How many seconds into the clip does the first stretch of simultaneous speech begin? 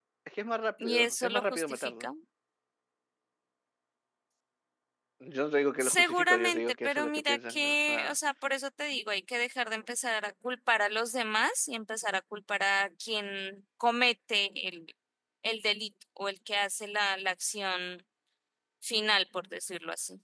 1 s

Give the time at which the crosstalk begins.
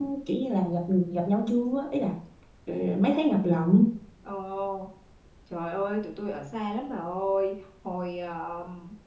none

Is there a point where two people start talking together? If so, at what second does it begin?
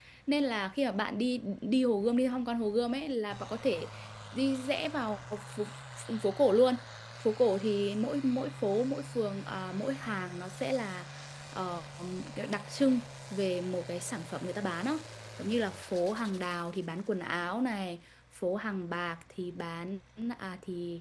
none

